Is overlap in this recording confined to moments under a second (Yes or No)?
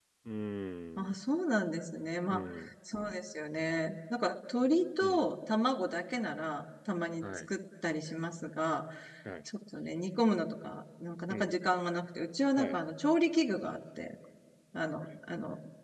Yes